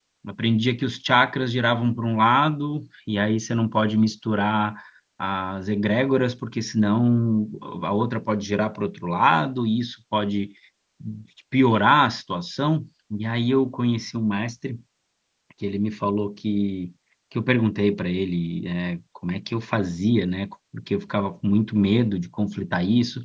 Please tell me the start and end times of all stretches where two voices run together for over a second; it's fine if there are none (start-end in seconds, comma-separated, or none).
none